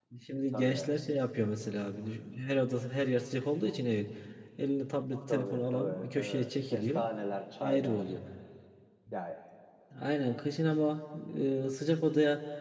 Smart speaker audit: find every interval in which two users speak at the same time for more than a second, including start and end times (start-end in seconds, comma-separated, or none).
5.3-7.0